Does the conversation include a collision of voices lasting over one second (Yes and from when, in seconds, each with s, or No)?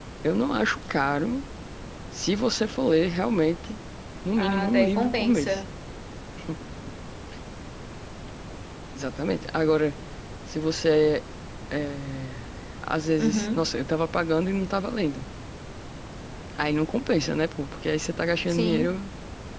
Yes, from 4.4 s